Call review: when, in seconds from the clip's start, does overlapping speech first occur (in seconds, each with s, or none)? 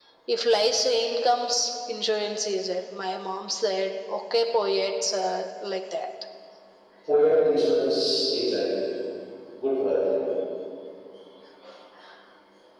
none